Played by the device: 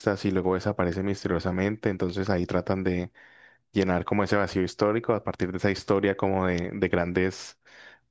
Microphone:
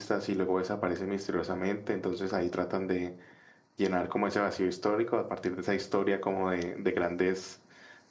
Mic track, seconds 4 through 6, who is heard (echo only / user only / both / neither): echo only